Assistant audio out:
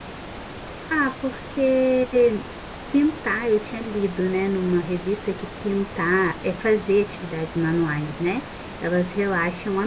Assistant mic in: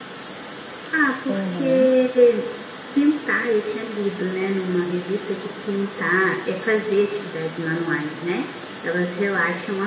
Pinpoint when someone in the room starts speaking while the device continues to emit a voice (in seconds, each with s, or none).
1.3 s